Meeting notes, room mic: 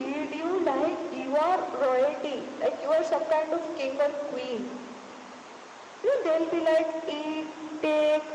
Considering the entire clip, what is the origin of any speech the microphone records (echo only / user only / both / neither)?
echo only